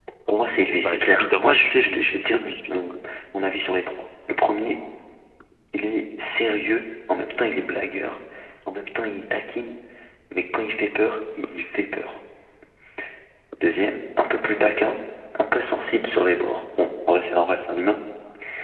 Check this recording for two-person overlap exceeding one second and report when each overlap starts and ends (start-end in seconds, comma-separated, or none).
0.8-2.8